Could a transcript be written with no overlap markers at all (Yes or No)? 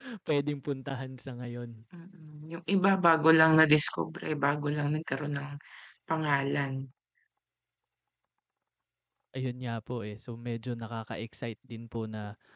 Yes